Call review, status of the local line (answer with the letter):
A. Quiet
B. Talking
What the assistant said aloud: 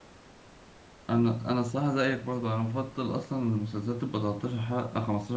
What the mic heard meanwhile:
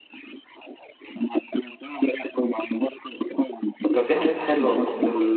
B